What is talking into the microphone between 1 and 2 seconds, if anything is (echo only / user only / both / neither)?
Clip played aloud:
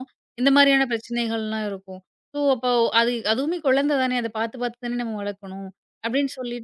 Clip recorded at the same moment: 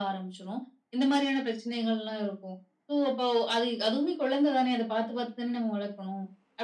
echo only